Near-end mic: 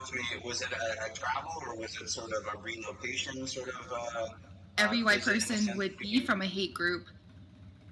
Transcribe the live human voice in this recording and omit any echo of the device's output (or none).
every white person would be from a hate group.